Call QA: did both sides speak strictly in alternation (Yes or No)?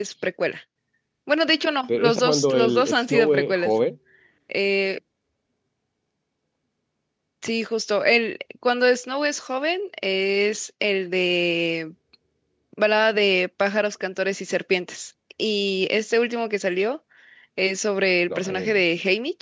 No